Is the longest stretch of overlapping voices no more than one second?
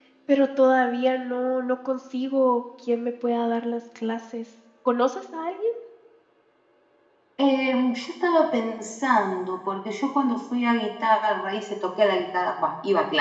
Yes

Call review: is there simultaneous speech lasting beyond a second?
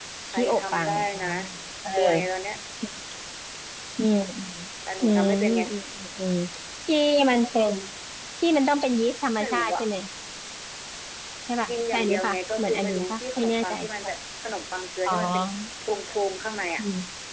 Yes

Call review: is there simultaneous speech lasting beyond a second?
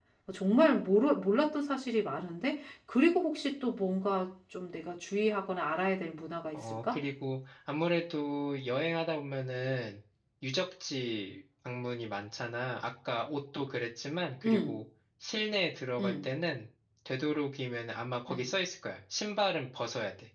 No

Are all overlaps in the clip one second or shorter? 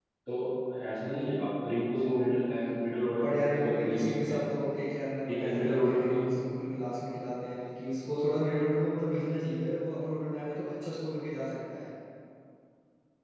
No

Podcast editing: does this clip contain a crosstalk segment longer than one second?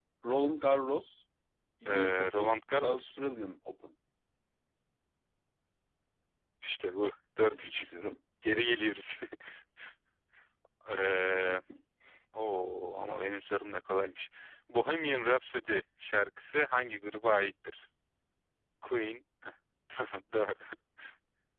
Yes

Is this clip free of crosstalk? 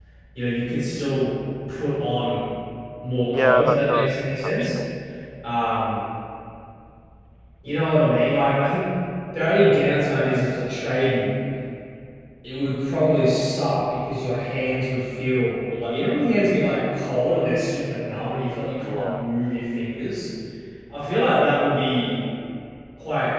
No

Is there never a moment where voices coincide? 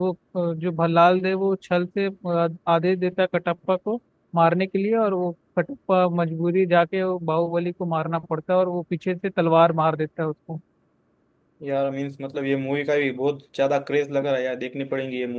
Yes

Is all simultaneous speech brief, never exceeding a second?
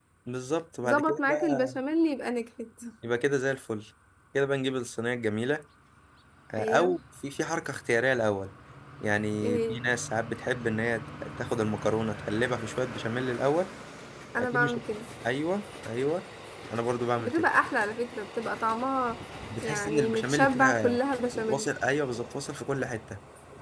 No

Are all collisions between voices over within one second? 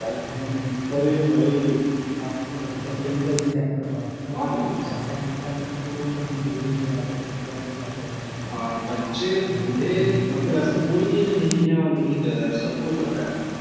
No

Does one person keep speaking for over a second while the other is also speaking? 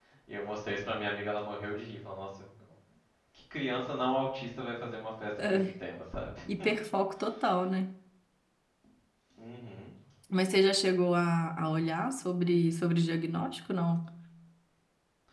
No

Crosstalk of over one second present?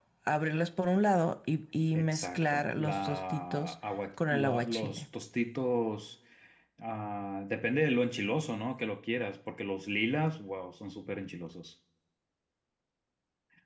Yes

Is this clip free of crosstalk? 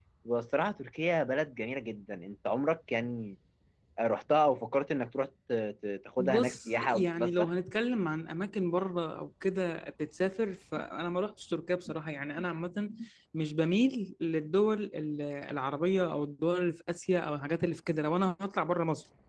No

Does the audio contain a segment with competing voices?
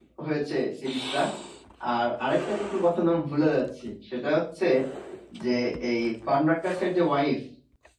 No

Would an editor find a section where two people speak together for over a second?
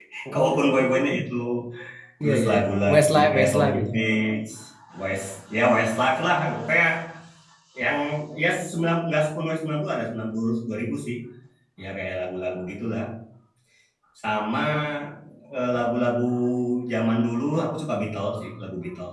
Yes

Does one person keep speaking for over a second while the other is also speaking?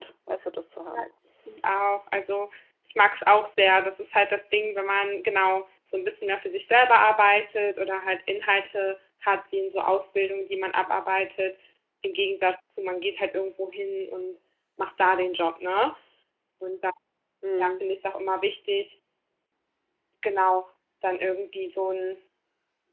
No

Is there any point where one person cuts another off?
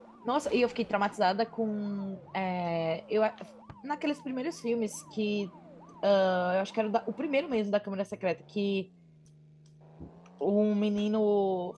No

